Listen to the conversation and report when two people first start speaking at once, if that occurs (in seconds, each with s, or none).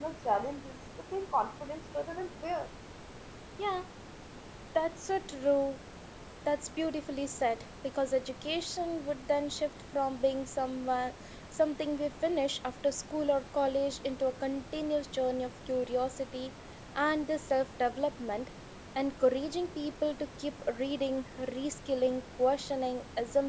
none